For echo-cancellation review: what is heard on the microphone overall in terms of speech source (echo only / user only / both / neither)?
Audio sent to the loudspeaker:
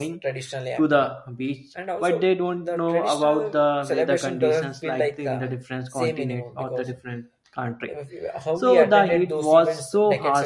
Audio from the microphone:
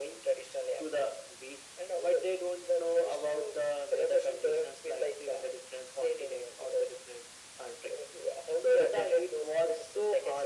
echo only